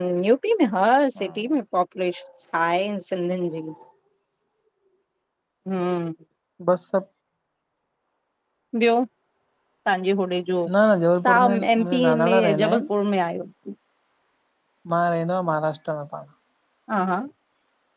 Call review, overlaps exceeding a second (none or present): present